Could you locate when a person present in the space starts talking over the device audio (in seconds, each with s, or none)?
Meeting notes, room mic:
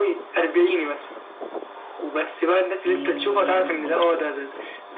2.8 s